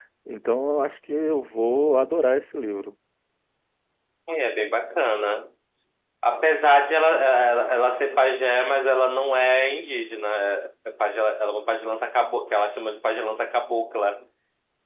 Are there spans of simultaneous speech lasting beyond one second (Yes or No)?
No